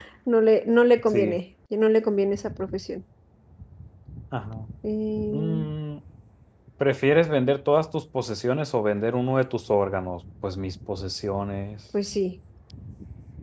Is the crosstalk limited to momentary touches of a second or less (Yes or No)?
Yes